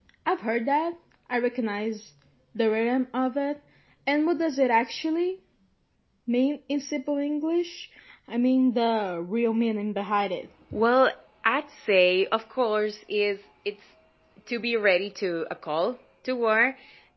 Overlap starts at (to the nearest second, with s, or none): none